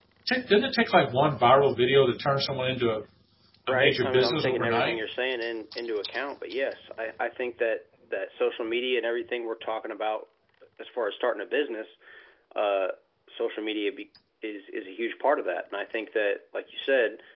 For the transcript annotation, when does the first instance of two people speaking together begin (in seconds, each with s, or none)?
3.7 s